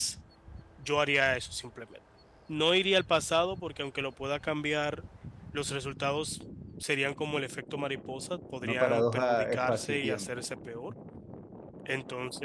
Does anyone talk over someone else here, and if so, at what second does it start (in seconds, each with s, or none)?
8.6 s